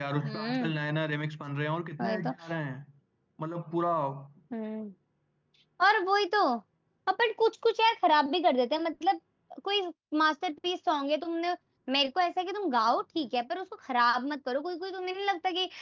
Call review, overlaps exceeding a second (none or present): none